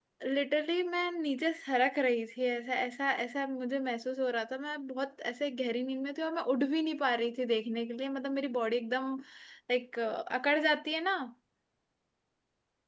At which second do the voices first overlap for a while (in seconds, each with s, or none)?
none